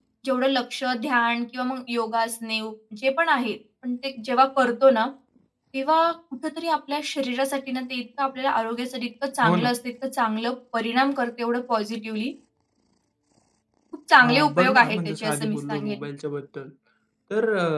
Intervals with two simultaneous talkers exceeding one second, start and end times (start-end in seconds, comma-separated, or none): 14.2-16.0